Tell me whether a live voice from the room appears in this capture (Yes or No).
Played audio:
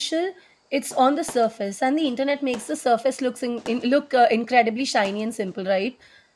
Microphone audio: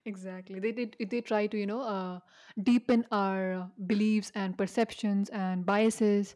Yes